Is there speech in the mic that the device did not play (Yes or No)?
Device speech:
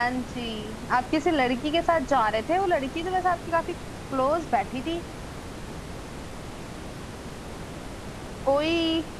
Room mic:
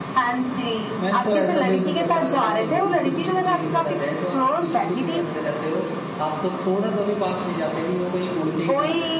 Yes